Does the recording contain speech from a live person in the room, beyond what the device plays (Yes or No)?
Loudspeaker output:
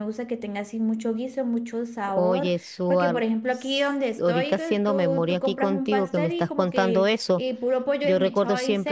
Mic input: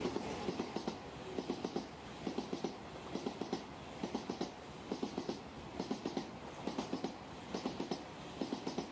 No